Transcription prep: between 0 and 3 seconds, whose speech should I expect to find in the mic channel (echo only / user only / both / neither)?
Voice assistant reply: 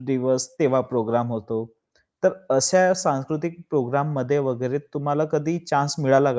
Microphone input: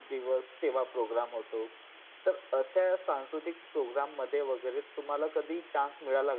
echo only